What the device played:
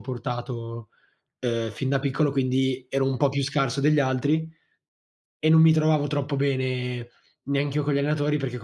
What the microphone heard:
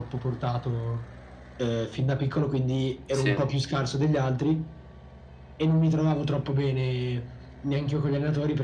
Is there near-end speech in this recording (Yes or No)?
Yes